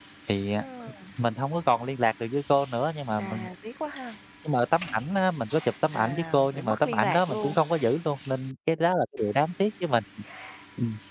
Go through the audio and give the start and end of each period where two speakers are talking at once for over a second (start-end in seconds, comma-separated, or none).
5.9-7.6